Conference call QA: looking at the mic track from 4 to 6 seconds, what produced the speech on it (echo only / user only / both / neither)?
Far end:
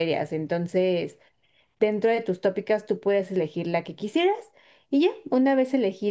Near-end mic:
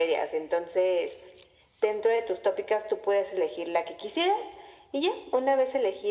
echo only